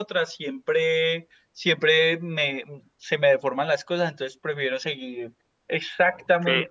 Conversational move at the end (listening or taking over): taking over